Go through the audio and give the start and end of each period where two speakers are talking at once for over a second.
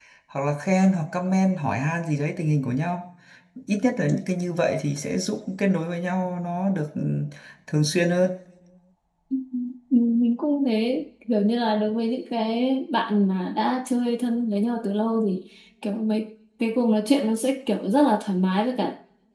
none

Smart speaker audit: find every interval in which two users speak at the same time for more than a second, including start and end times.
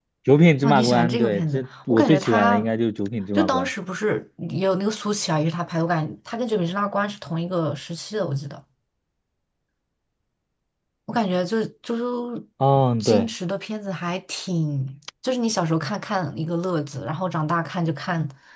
0.6-2.6

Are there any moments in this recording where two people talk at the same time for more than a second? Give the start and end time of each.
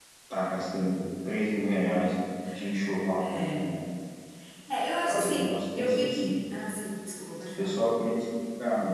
5.1-6.3

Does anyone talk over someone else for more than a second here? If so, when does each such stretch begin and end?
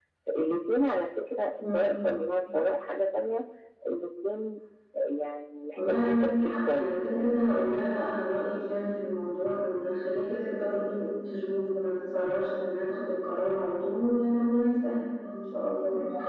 5.8-7.3

